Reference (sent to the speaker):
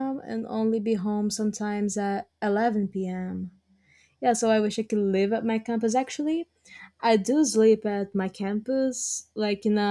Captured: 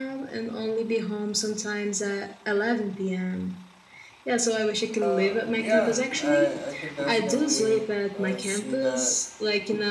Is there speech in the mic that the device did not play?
Yes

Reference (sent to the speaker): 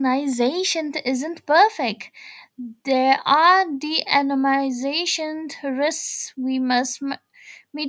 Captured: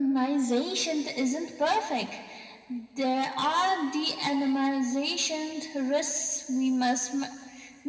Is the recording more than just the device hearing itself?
No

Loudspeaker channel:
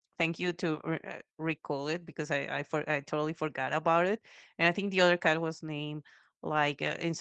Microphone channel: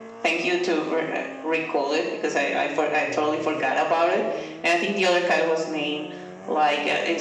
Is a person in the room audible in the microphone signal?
No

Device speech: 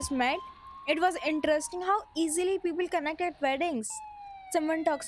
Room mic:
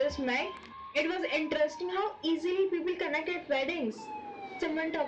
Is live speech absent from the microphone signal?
Yes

